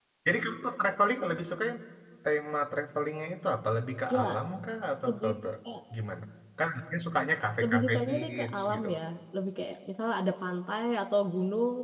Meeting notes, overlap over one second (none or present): present